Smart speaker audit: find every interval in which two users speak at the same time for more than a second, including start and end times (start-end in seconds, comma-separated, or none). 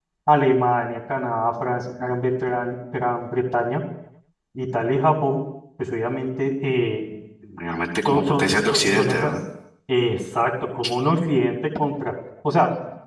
8.1-9.3